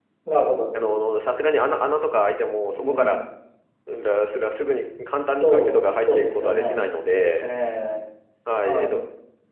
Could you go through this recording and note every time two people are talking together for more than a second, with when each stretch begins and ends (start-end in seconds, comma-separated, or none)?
5.4-6.8